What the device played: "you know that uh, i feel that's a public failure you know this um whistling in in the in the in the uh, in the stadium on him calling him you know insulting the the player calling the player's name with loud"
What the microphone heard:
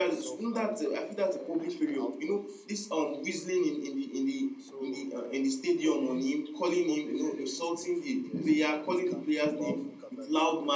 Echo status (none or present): present